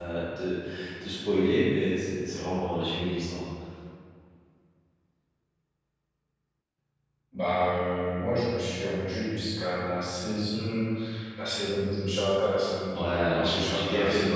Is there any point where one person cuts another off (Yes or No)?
Yes